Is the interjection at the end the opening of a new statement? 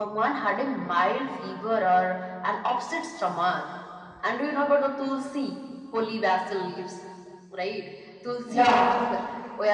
No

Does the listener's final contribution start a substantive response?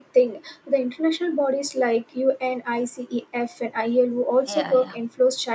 No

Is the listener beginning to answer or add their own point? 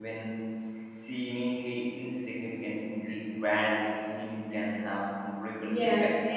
Yes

